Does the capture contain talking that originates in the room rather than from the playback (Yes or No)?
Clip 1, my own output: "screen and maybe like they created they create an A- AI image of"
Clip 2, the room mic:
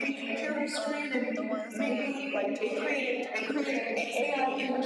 Yes